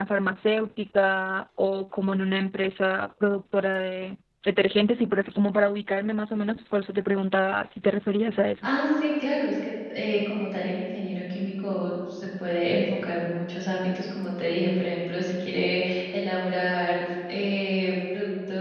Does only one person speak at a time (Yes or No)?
Yes